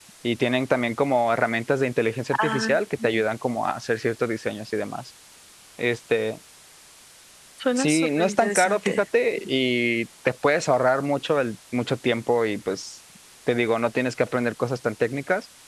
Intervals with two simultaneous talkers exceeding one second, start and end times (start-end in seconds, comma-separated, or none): 7.7-9.0